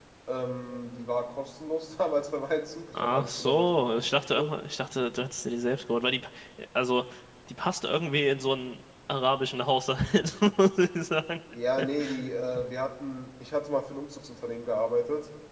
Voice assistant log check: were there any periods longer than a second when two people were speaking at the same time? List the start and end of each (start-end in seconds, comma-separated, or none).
2.9-4.5